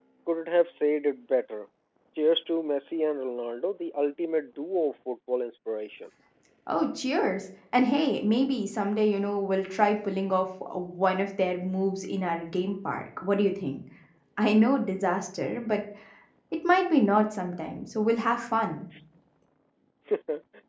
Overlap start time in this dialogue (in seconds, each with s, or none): none